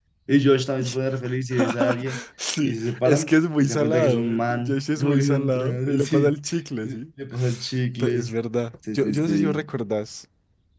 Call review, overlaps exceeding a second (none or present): present